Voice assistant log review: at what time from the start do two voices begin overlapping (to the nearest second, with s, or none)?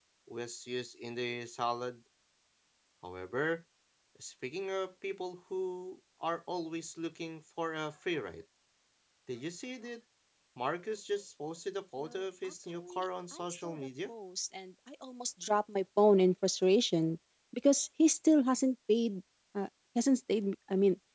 12 s